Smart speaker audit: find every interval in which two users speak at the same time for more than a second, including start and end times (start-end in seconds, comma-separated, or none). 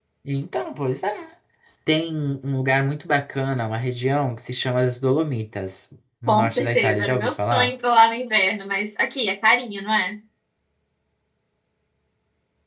6.3-7.7